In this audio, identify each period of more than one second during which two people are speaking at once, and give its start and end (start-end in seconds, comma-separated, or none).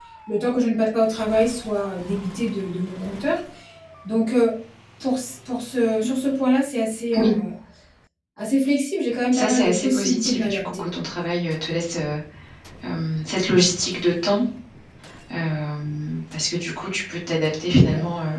9.3-11.0